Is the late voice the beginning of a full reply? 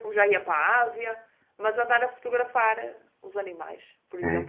No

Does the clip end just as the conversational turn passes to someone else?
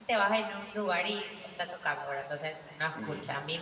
No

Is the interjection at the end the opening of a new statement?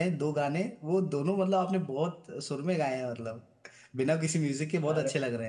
Yes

